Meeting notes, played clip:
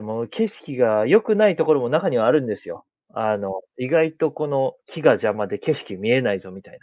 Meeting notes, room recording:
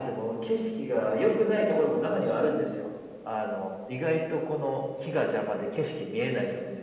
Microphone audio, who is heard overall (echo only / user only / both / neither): echo only